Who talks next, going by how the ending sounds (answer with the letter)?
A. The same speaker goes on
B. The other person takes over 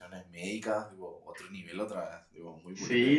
B